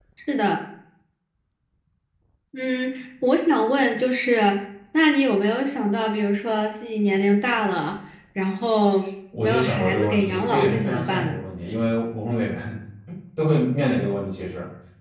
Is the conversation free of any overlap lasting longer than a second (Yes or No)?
No